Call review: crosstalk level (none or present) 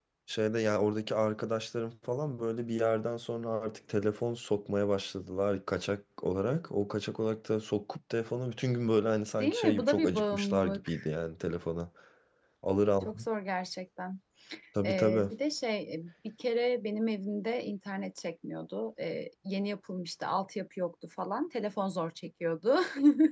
present